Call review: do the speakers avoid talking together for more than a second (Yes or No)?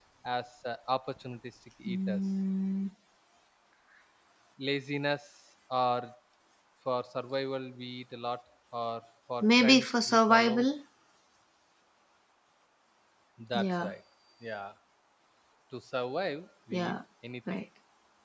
No